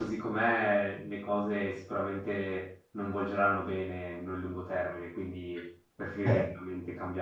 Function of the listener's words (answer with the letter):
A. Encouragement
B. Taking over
A